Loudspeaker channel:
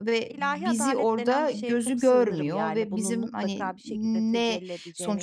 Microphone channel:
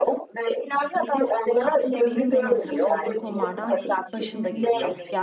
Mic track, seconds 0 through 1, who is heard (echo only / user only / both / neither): echo only